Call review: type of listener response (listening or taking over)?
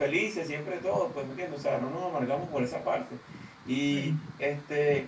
listening